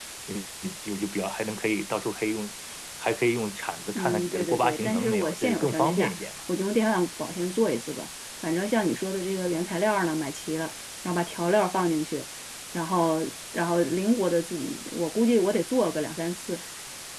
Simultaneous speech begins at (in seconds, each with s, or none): 4.0 s